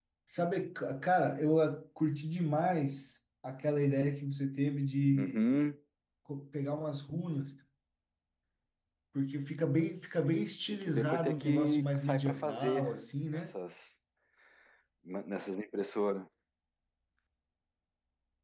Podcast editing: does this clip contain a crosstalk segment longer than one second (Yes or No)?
Yes